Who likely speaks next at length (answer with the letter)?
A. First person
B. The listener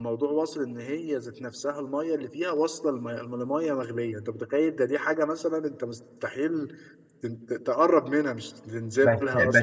B